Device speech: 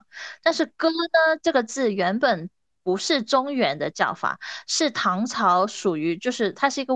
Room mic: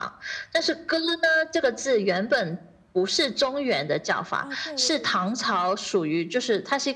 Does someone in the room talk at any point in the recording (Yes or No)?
Yes